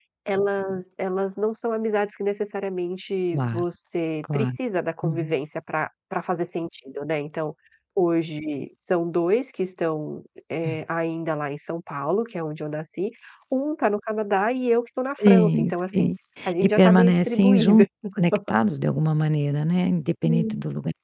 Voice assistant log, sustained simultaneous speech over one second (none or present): present